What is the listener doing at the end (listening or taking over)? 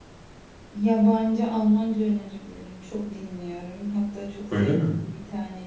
listening